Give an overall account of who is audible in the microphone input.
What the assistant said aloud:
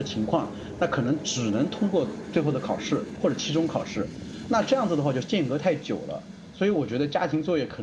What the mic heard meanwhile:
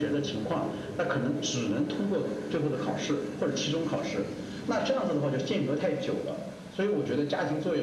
echo only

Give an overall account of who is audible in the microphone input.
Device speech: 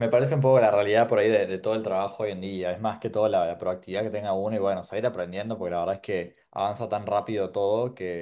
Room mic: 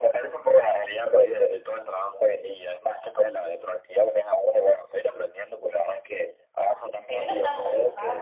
both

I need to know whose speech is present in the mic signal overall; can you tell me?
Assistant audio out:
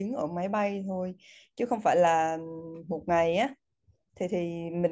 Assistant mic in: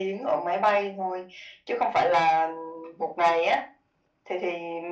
echo only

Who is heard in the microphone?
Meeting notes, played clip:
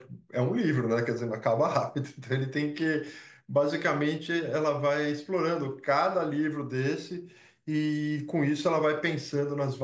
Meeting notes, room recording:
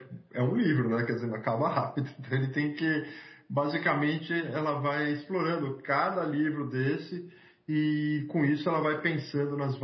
echo only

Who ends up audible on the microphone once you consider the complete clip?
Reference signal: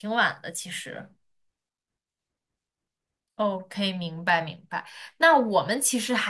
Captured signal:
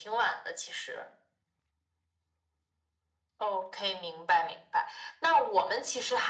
echo only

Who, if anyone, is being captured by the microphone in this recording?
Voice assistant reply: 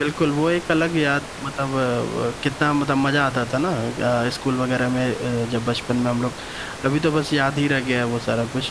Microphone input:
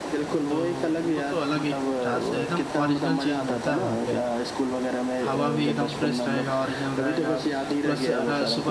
both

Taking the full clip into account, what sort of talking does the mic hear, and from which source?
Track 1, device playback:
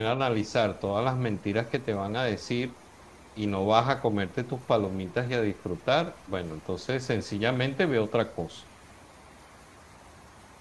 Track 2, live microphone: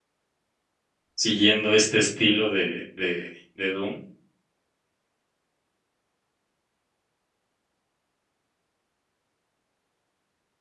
user only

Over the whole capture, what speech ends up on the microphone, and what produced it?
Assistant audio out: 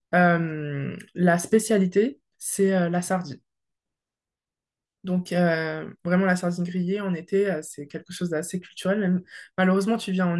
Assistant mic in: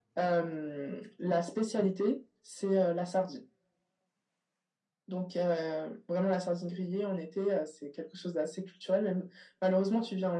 echo only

